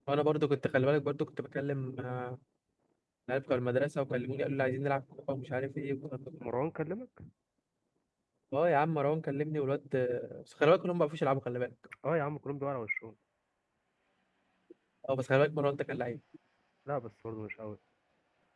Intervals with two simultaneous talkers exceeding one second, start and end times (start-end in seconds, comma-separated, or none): none